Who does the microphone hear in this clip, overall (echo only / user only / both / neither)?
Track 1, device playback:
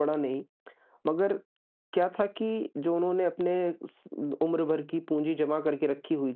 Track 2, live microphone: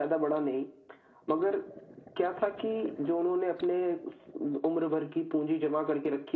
echo only